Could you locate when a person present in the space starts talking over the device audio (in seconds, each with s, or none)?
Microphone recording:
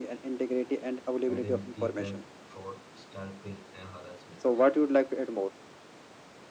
1.3 s